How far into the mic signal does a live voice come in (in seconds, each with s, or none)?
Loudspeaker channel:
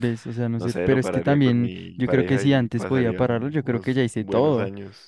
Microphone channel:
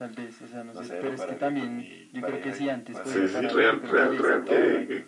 3.0 s